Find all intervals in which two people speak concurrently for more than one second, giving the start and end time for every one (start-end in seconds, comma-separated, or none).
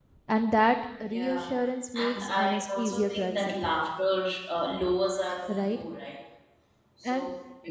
1.9-3.5